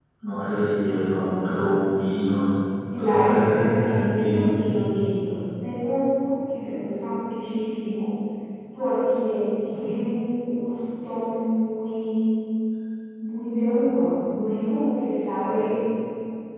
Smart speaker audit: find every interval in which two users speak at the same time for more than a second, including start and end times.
3.0-4.5

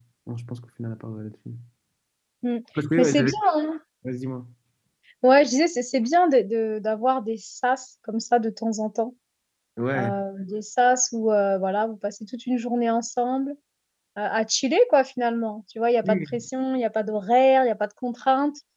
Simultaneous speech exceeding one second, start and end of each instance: none

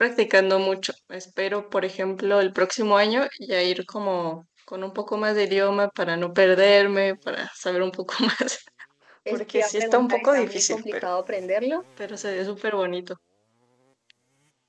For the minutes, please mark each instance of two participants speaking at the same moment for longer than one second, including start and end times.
9.3-11.1

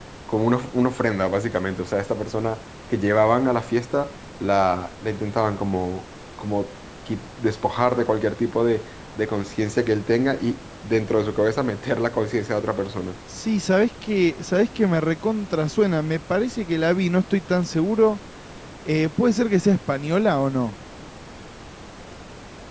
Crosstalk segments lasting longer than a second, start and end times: none

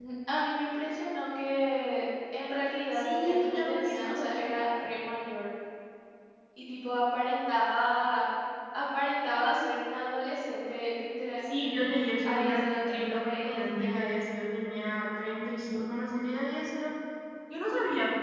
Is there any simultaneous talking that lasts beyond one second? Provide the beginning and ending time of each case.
2.9-4.3, 12.2-14.2

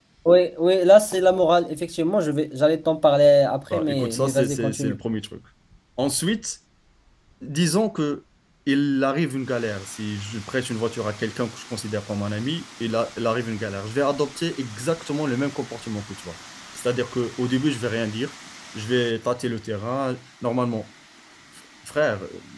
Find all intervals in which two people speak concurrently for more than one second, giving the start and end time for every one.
3.7-5.0

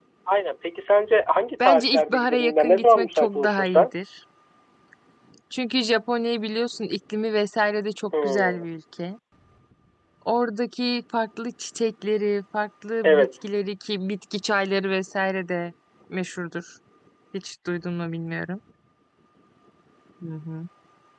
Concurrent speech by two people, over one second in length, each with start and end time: 1.6-3.9

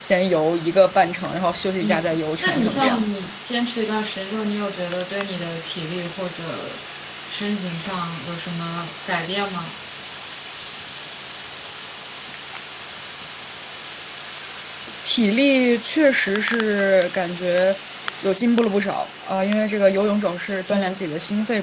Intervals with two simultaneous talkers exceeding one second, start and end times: 1.8-3.0

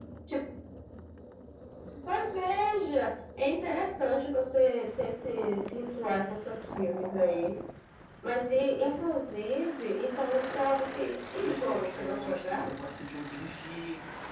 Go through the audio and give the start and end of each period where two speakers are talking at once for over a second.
11.4-12.7

